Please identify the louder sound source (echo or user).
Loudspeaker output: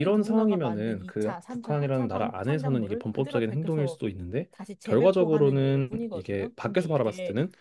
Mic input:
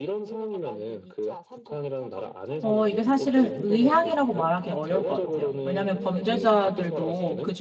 user